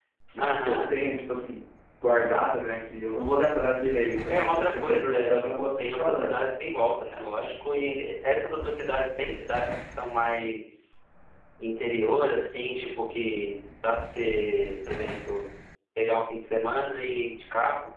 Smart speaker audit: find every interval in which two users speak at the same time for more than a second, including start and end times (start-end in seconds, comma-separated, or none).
4.3-6.4